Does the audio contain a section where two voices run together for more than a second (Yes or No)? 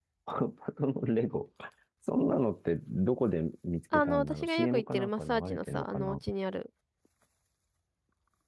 Yes